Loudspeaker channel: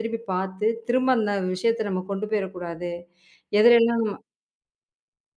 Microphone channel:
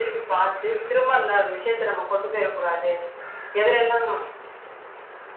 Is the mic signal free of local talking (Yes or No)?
Yes